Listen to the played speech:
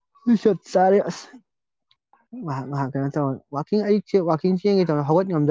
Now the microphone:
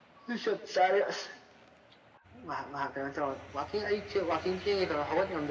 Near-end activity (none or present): none